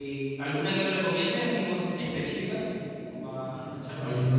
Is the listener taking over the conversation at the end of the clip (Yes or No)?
Yes